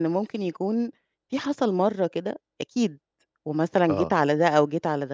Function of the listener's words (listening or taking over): listening